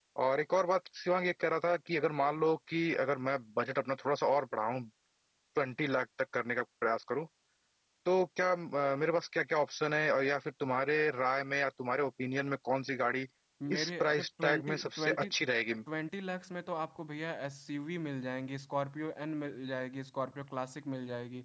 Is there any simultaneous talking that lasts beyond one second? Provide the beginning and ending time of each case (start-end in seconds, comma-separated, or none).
13.7-15.3